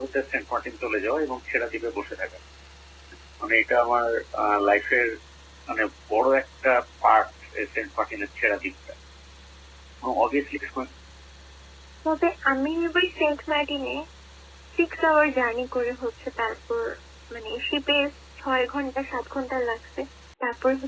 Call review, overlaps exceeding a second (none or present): none